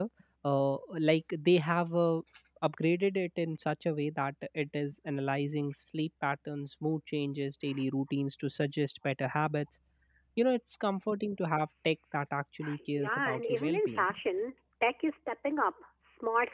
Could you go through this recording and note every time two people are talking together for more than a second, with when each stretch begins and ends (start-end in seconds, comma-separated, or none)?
12.8-14.1